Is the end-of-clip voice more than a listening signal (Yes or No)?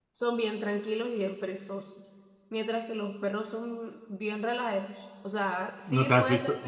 Yes